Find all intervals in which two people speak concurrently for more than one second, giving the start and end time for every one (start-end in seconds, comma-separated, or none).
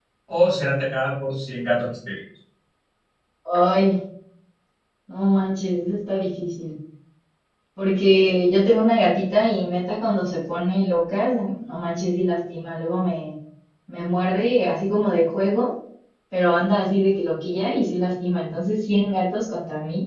none